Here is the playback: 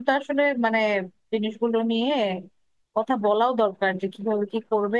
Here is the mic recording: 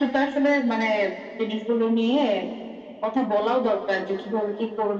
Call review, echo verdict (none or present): present